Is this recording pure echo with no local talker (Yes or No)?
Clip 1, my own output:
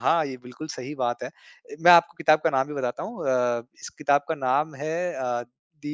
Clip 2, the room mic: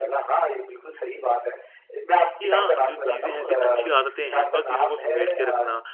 No